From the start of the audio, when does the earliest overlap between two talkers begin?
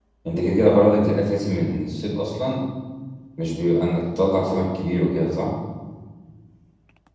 none

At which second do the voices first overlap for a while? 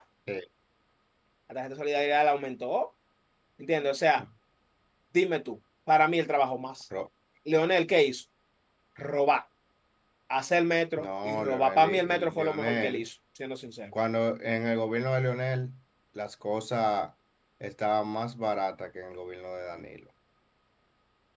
11 s

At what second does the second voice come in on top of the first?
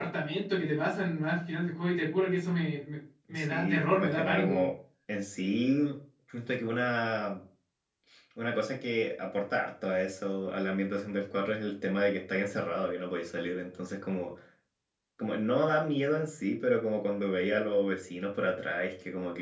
3 s

